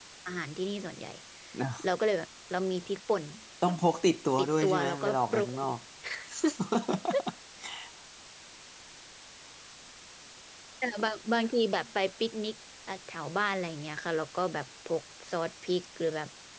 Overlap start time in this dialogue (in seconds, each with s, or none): 4.4 s